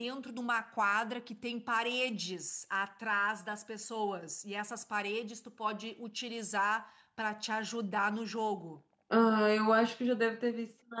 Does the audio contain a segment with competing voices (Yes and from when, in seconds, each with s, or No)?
No